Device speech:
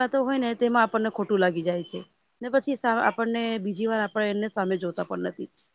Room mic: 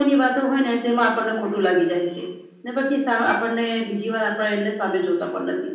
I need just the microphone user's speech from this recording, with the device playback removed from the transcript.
none

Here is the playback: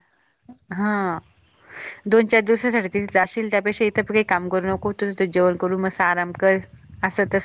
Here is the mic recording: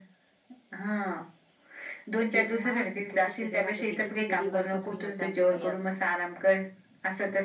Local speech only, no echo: ते माहेरच सुखच वेगळं राहत ते किती गरीब असो श्रीमंत असो काही असो

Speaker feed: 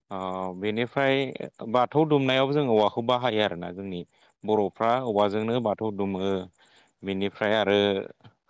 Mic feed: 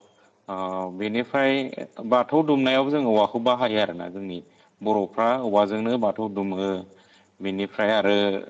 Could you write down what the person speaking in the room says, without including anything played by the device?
none

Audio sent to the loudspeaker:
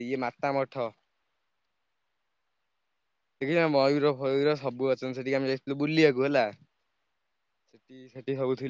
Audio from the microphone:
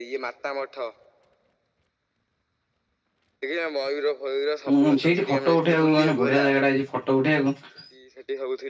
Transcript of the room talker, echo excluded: ଉୁଁ ଉୁଁ ସେଇଠି ଫଟୋ ଉଠେଇବାକୁ ମାନେ ବଢ଼ିଆ ଜାଗାଟା ହେଇଛି ଫଟୋ ଉଠେଇବାକୁ।

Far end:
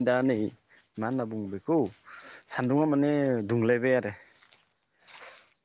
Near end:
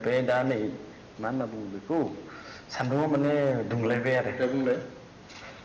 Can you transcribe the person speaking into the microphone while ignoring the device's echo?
अ दे बुंलाय

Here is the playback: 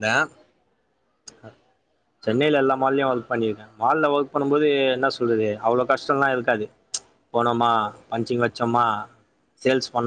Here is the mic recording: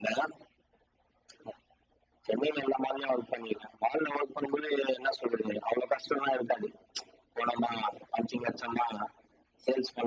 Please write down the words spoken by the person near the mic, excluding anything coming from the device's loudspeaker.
none

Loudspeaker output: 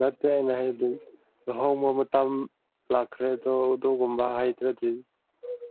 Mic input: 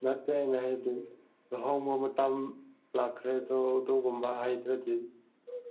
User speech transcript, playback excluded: none

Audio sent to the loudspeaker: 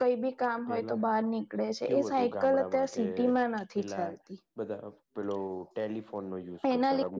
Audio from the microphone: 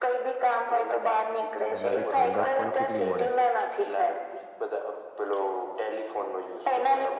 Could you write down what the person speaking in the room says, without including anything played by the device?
એનાથી ઠંડક પણ કેટલી મળે.

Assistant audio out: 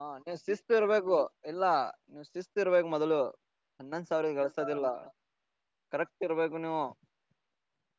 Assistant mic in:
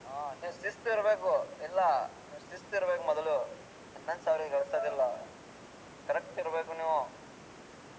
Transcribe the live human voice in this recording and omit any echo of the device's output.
none

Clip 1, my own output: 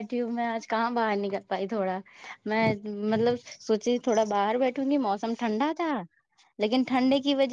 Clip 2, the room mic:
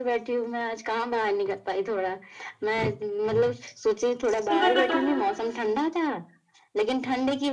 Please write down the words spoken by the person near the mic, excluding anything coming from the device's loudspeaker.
صبح کا

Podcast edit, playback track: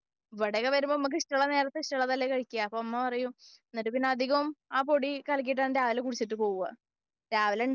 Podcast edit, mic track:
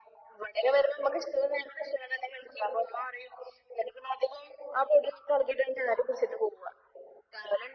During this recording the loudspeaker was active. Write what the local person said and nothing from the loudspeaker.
none

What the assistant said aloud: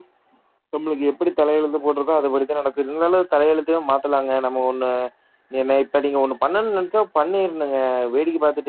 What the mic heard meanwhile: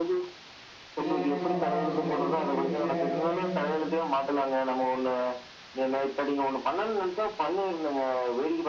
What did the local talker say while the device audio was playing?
இதுலதாங்க பணோ இதுலதாங்க போயிட்டு இருக்கு யாருமே

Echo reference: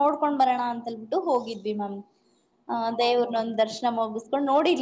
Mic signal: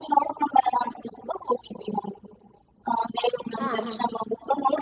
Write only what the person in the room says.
ಹಾ ಹಾ

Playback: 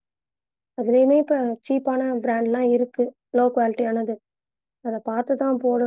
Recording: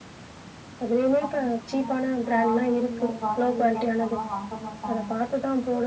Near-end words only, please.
ம்ஹும் ஆனா வீட்ல ஆன்லைன்ல கிராசரி ஐட்டம்ஸ் ஆனா வாங்க மாட்டாங்க

